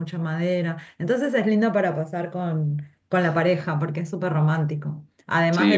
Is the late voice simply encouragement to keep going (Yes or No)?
No